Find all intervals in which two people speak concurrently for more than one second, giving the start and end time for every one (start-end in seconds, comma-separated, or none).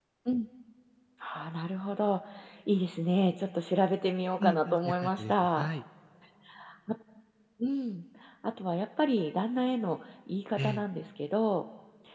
4.4-5.7